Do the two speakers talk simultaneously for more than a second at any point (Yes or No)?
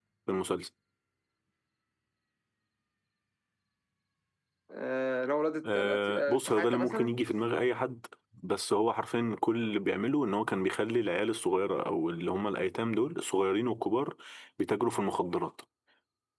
Yes